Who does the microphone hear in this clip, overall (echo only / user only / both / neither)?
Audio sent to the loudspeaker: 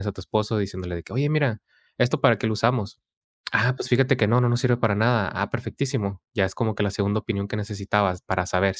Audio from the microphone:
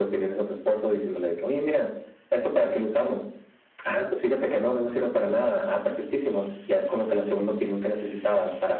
echo only